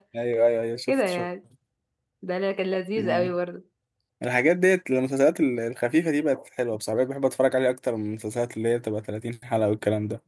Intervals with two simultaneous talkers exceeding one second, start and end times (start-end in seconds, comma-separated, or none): none